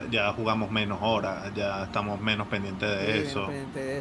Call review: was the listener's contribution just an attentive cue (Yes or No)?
No